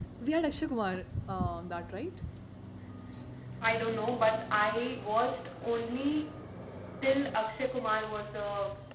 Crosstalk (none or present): none